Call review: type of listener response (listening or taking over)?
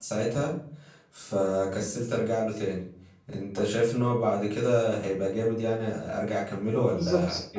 taking over